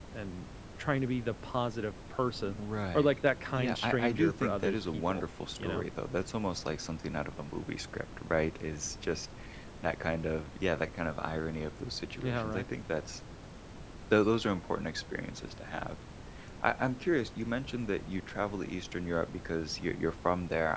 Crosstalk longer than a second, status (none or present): present